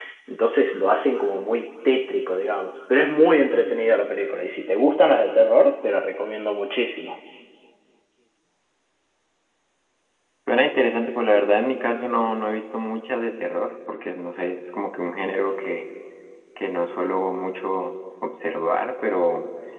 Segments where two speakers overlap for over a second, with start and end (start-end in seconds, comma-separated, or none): none